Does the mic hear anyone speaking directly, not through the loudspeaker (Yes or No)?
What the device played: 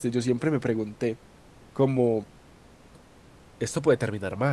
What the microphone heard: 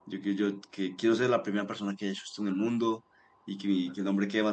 Yes